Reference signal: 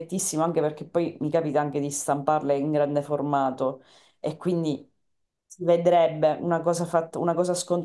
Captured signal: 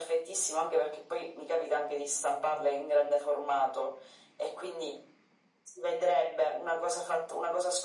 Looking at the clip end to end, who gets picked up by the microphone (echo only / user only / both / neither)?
echo only